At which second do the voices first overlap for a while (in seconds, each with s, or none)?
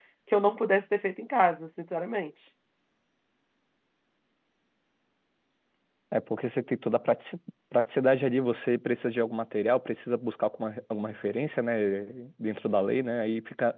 none